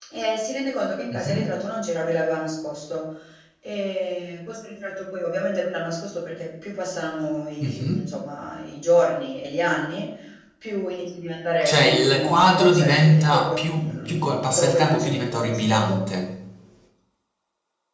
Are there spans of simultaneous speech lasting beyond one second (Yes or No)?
Yes